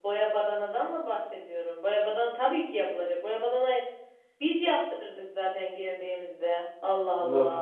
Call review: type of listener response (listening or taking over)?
taking over